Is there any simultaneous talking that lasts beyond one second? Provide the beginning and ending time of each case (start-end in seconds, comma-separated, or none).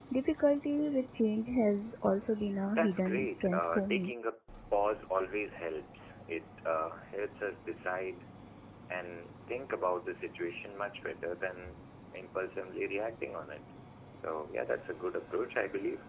2.8-4.1